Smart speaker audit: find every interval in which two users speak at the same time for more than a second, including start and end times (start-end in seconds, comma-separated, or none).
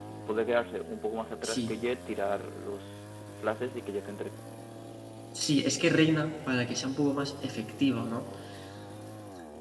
none